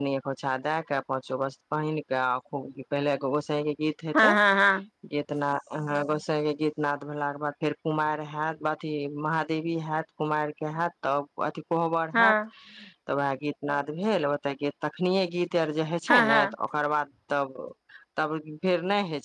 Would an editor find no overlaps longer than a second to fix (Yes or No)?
Yes